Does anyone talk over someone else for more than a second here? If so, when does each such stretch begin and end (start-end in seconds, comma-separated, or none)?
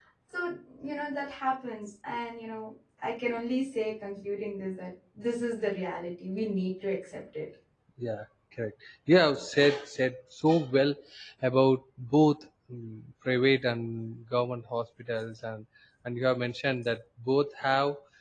none